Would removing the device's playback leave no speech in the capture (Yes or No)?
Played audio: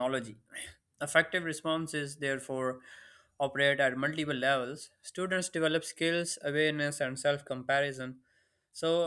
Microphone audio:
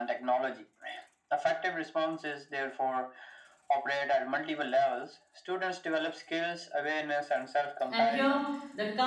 No